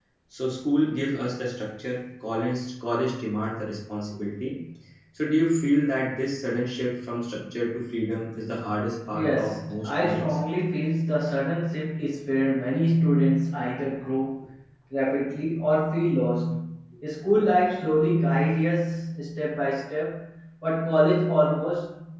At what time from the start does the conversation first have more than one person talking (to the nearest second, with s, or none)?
9 s